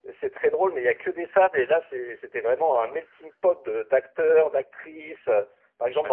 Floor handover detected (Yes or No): No